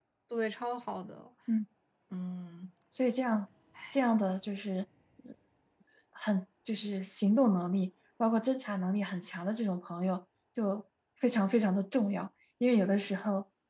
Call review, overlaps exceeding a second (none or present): none